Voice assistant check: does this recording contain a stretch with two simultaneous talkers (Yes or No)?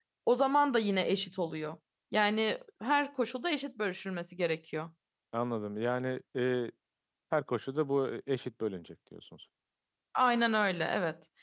No